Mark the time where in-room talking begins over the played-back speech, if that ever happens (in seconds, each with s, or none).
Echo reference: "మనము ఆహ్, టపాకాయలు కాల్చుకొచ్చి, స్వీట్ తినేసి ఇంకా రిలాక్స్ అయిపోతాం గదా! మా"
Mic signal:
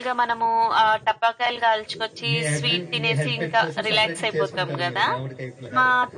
1.9 s